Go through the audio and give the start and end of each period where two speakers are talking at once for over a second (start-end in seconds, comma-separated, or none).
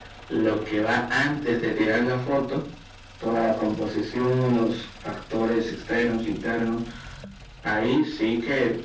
none